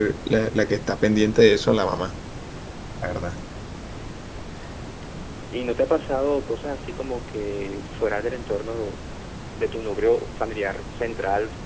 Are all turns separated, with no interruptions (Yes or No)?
Yes